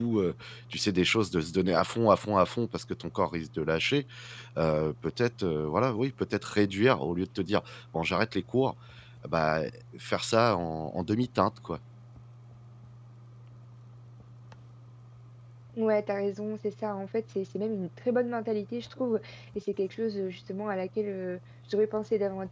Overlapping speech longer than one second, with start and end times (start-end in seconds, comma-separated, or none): none